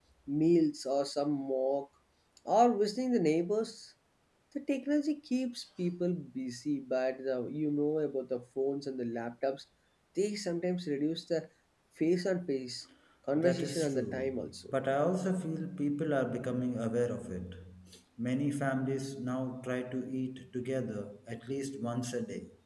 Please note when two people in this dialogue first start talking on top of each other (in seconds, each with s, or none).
13.3 s